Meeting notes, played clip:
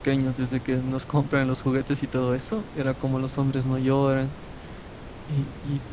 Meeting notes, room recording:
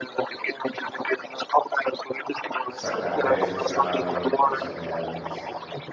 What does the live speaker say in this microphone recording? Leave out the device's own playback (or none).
sacarte de ese estado de, de soledad, es